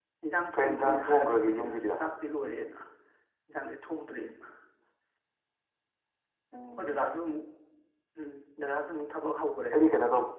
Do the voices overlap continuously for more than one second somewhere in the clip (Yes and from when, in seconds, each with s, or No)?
Yes, from 0.5 s